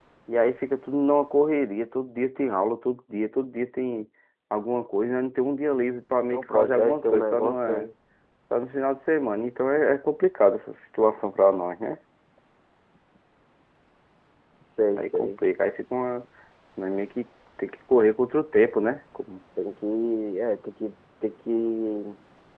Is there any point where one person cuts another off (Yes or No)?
Yes